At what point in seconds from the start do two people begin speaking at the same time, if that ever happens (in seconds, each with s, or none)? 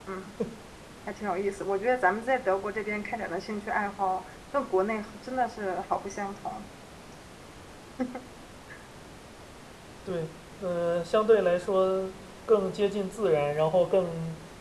none